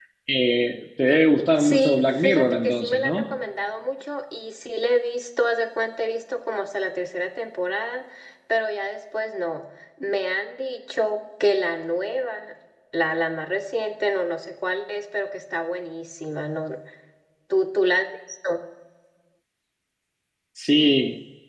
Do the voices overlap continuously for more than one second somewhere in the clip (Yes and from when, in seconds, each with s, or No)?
Yes, from 1.4 s